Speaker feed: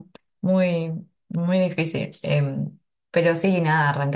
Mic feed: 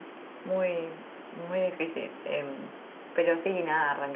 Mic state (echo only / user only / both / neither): echo only